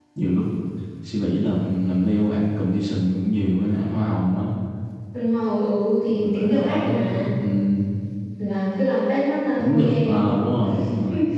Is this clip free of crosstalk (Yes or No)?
No